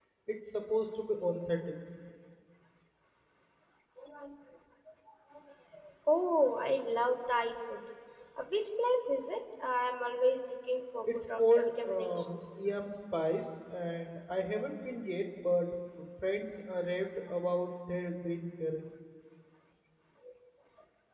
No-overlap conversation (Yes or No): No